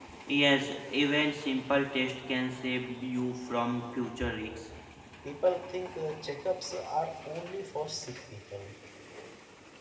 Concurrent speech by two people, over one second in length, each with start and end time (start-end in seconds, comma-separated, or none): none